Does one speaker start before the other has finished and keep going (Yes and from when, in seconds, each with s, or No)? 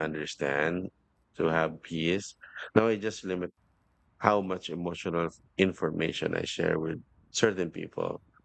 No